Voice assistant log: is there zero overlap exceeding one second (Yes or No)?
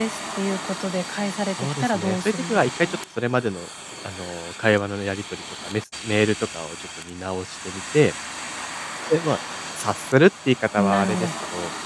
No